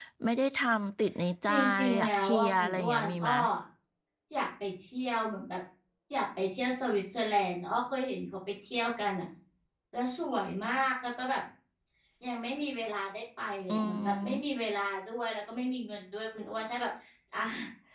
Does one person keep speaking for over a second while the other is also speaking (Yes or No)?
Yes